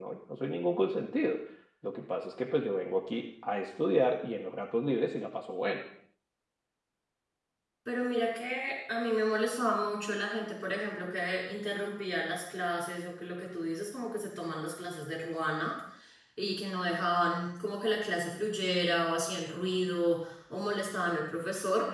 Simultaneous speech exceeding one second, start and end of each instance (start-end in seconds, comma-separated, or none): none